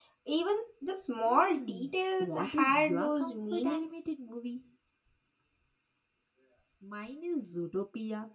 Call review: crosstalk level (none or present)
present